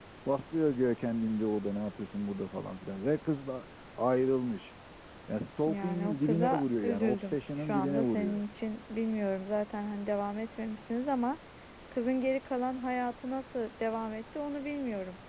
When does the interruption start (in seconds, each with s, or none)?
5.6 s